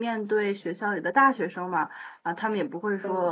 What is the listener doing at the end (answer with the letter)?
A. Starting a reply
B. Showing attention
B